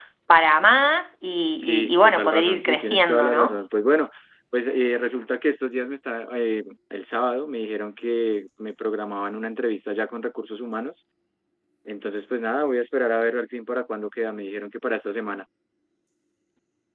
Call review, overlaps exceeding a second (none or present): present